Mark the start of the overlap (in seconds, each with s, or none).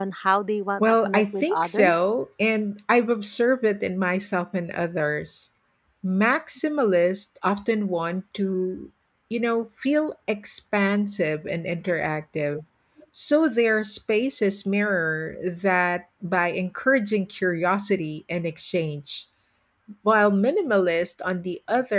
0.8 s